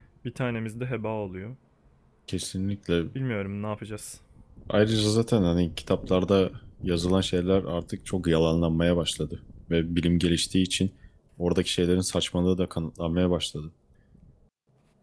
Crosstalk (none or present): none